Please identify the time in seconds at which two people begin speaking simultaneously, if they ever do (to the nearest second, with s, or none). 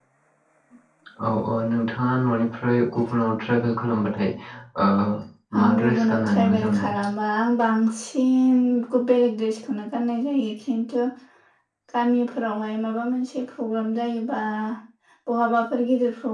6 s